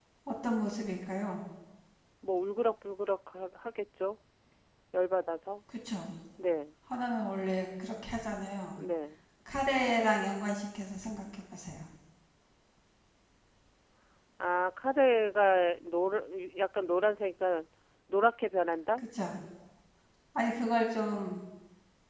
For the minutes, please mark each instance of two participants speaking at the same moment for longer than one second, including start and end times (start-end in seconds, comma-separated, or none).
none